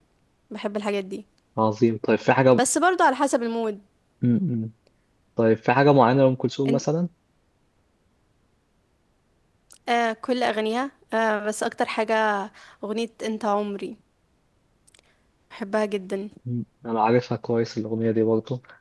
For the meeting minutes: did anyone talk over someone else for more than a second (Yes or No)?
No